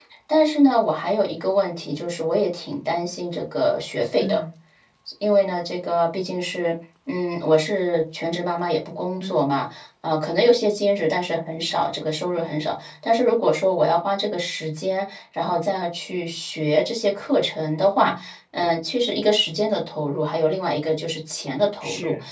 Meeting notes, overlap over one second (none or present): none